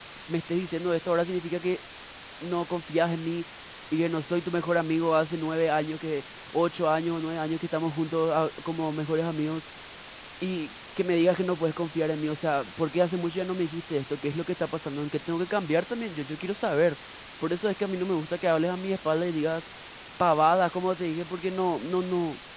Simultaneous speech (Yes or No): No